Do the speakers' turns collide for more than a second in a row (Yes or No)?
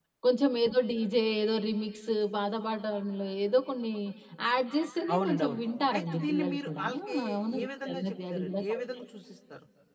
Yes